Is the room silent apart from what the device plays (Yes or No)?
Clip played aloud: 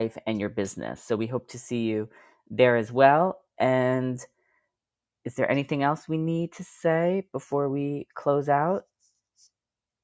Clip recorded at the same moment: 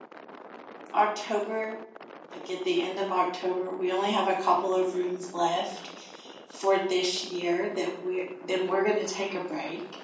No